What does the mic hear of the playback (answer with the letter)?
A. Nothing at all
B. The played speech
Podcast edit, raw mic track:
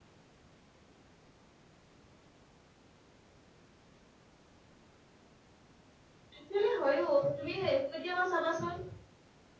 A